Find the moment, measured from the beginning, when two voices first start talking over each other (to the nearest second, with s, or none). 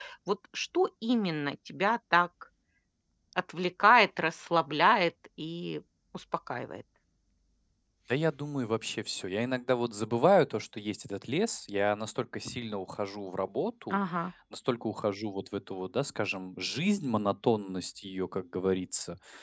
none